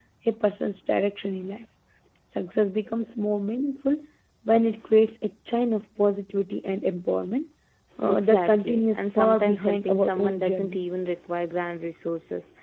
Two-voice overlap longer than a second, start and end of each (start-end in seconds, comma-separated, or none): 8.0-10.8